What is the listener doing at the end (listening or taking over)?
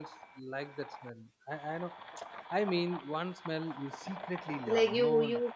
taking over